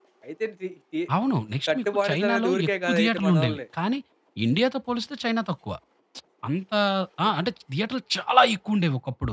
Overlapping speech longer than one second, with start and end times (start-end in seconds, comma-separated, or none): 1.7-3.6